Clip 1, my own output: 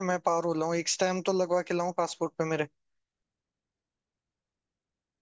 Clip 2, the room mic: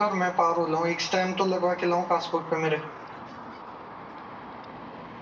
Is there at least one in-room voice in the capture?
No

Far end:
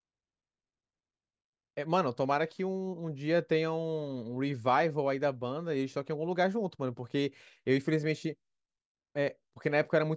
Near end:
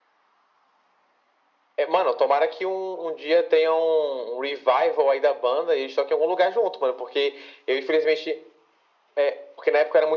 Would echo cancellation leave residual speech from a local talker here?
No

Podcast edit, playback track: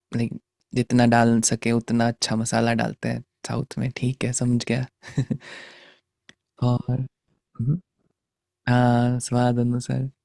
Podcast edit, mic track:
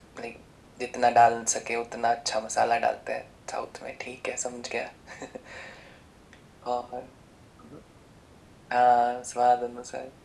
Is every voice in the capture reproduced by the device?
Yes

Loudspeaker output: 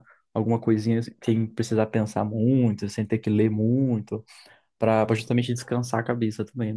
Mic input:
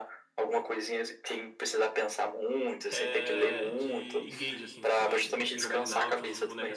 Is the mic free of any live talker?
No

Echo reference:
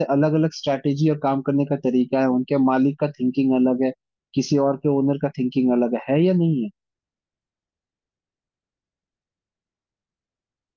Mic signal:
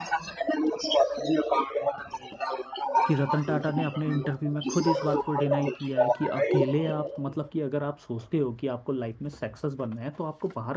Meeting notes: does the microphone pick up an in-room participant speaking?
Yes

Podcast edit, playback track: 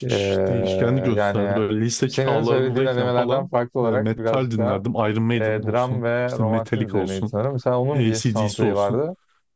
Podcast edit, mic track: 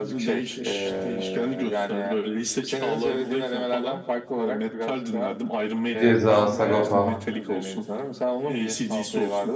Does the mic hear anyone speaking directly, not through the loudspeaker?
Yes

